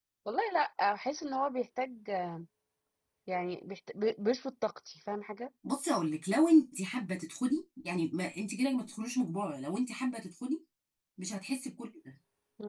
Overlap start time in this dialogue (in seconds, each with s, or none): none